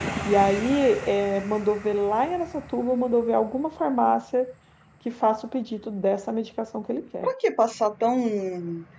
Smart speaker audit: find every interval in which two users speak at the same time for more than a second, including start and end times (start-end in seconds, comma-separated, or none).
none